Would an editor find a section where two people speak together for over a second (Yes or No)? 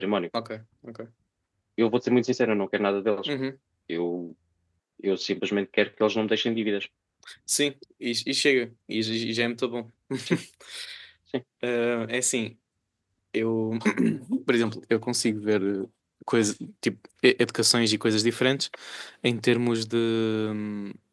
No